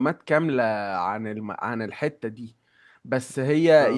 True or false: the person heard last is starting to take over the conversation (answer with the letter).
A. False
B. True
A